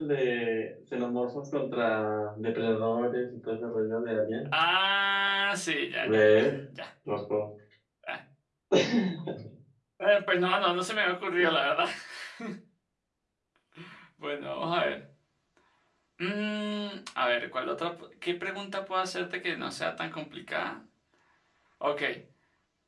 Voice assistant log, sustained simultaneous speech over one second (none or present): none